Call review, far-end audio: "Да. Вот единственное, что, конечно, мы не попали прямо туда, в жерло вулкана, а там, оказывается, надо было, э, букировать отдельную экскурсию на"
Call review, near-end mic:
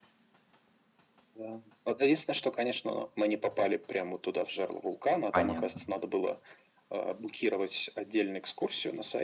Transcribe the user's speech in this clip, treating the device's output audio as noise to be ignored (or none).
Понятно,